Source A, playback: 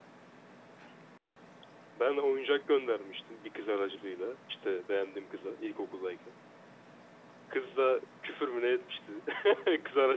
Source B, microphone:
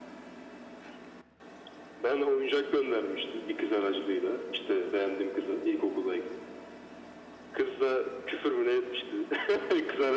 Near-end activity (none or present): none